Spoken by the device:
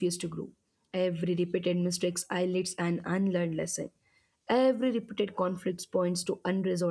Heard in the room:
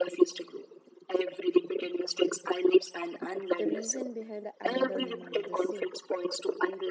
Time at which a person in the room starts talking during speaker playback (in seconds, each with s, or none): 3.6 s